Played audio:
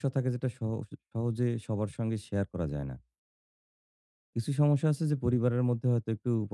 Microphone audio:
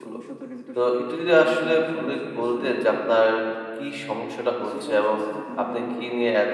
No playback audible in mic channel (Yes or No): No